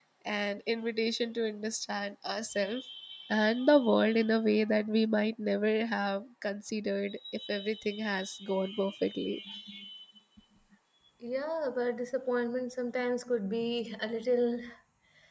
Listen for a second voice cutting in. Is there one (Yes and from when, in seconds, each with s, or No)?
No